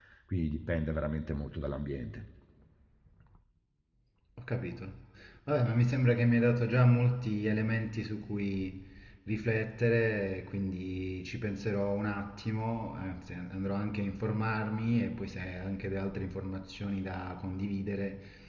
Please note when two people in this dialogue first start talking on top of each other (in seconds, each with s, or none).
none